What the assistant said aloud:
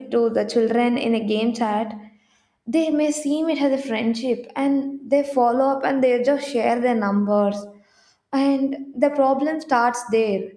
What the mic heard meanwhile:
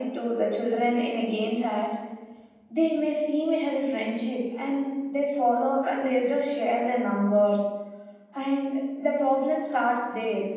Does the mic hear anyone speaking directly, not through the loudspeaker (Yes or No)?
No